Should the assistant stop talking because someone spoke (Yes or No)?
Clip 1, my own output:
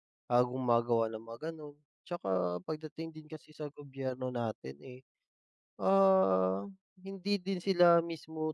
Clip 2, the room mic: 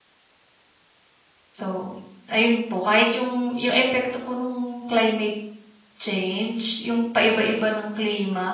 Yes